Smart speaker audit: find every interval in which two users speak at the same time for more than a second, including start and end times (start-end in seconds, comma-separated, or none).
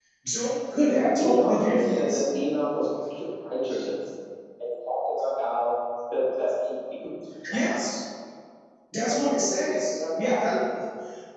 0.9-2.2, 9.1-10.5